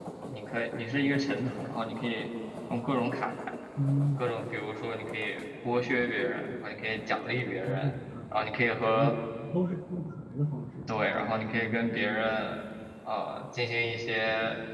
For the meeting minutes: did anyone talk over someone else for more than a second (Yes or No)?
No